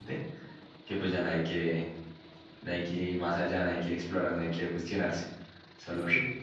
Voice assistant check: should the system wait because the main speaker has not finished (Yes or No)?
Yes